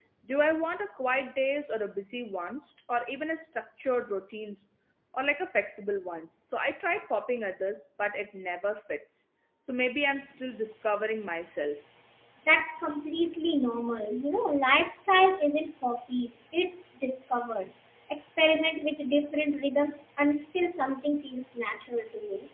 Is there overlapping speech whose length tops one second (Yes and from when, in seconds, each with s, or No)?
No